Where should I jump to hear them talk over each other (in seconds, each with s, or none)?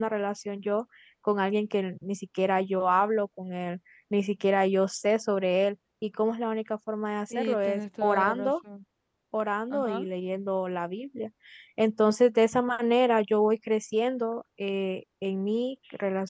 7.3 s